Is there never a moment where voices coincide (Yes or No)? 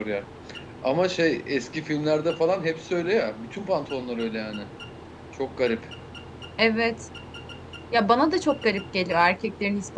Yes